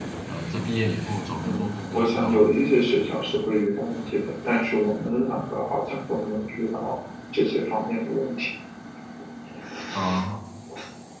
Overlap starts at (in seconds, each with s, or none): 1.4 s